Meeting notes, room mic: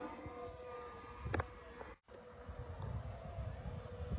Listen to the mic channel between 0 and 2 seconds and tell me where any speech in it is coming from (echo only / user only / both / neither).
neither